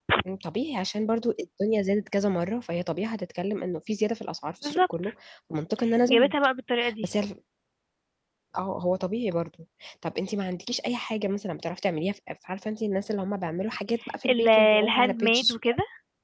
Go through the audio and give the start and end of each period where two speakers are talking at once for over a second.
14.3-15.8

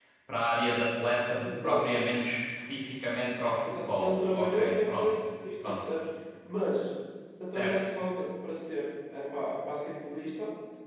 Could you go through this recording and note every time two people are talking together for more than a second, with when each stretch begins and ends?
3.6-5.1

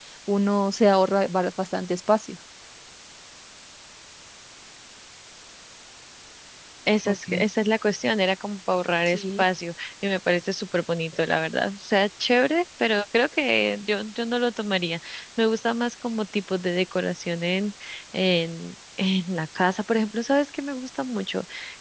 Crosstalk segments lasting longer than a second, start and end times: none

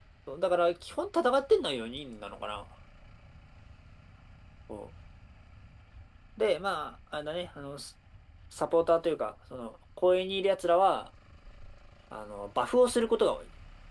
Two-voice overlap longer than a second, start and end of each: none

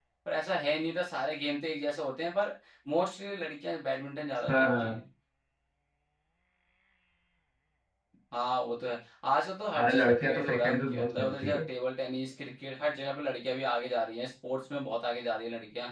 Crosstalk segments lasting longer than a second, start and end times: 9.8-11.6

